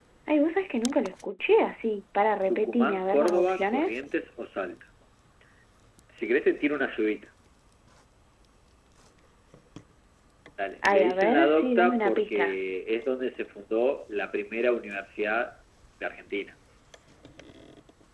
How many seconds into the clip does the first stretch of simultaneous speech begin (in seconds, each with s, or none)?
2.5 s